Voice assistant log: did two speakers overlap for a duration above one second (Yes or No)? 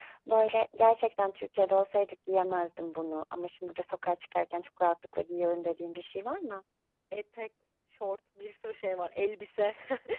No